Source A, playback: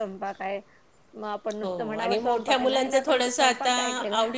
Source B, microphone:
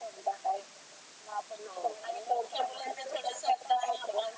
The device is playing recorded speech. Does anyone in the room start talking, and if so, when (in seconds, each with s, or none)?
none